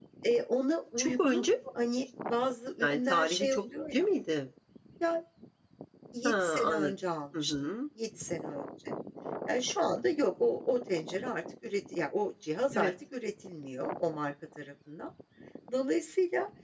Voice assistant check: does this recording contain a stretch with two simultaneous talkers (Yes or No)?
Yes